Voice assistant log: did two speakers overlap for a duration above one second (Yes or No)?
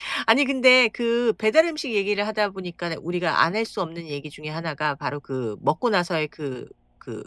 No